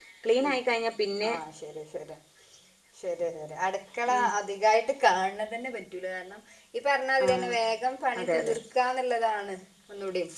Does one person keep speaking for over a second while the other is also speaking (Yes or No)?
No